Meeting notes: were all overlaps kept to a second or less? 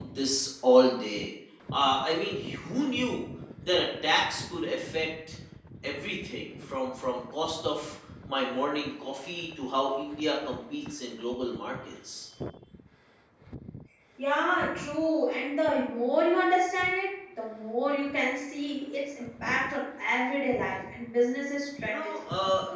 Yes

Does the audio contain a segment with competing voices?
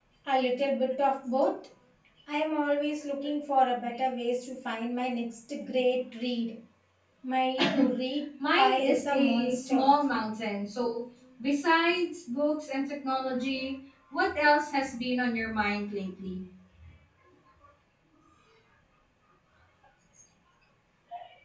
Yes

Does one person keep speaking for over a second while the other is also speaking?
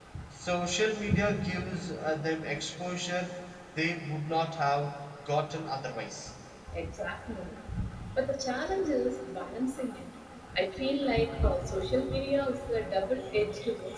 No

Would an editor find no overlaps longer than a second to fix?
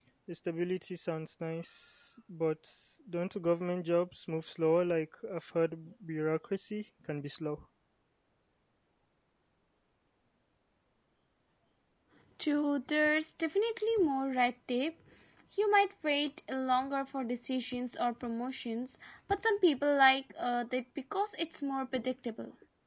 Yes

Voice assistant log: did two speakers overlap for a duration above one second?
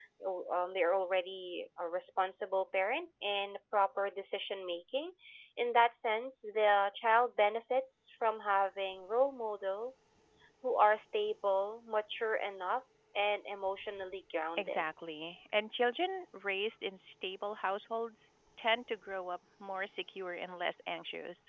No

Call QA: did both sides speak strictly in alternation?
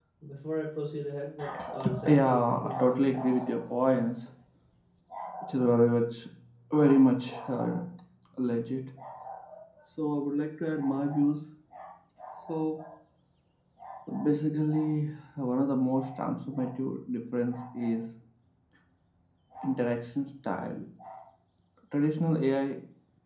No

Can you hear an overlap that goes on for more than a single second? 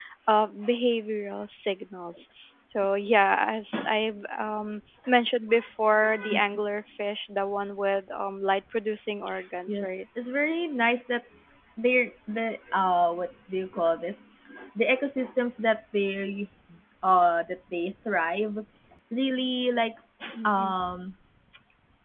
No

